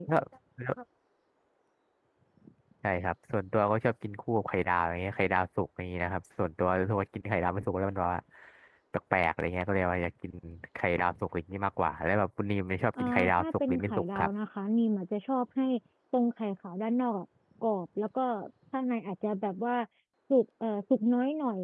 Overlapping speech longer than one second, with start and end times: 13.0-14.3

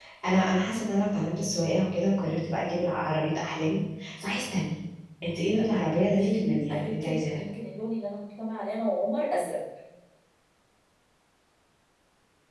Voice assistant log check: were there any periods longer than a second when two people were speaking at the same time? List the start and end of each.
5.6-7.4

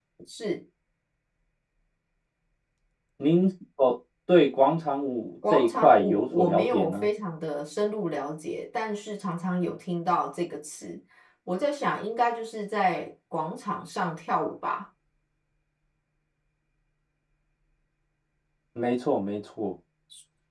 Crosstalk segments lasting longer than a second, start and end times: 5.5-7.1

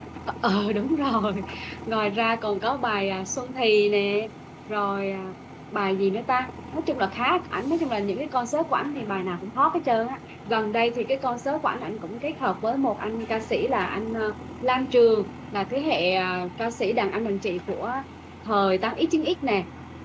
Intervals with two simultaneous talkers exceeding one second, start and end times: none

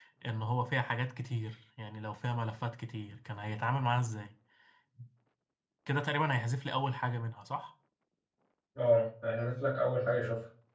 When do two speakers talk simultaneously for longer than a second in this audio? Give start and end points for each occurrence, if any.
none

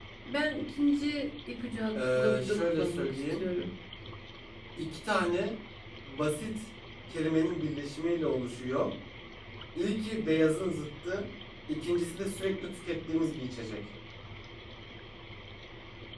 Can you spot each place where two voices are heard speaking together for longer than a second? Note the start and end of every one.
2.0-3.4

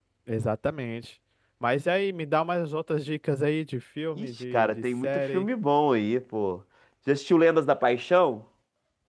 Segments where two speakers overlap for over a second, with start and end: 4.2-5.5

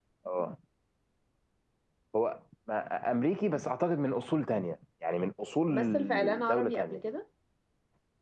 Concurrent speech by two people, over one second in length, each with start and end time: 5.7-7.0

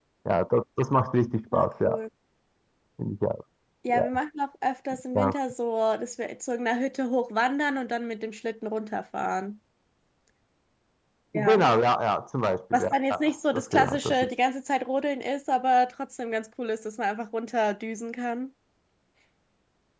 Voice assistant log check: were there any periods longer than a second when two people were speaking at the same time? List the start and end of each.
12.7-14.3

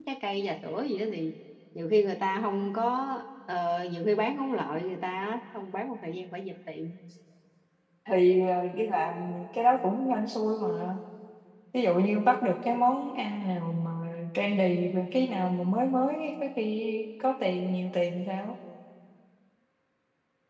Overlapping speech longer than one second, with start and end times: none

